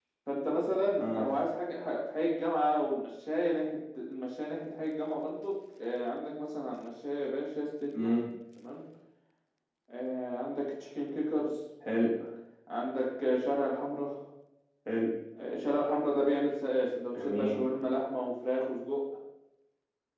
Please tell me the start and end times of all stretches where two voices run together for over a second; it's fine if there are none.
none

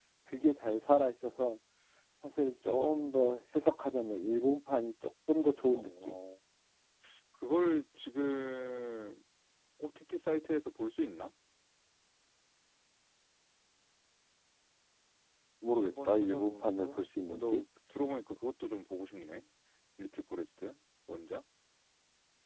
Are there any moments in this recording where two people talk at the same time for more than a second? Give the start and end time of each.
15.8-17.6

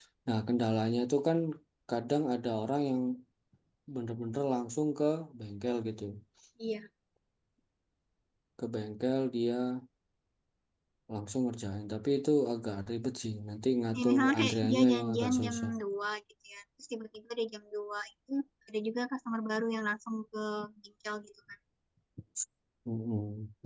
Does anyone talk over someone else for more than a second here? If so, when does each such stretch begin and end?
14.0-15.7

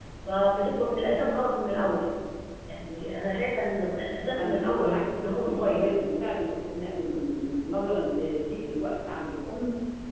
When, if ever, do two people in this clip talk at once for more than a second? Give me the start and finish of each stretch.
4.4-6.0

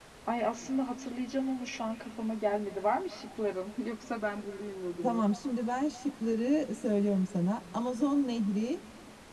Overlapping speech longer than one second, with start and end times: none

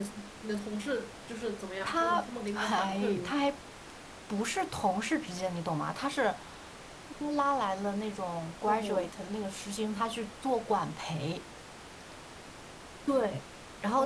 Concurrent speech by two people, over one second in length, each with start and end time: 1.8-3.6

